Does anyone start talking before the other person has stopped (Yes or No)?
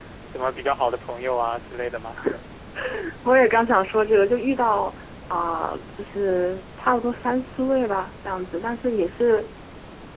No